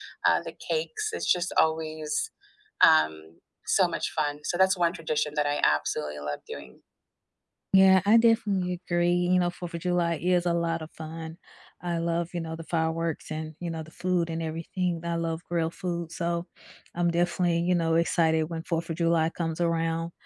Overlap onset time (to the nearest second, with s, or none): none